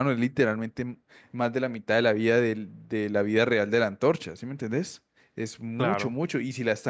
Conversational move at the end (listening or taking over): listening